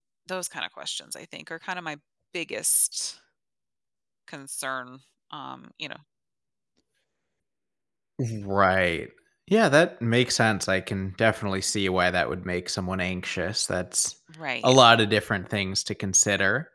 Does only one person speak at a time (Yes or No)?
Yes